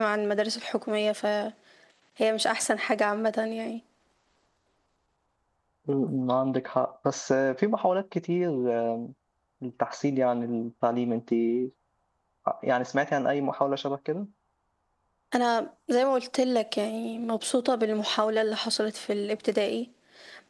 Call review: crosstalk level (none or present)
none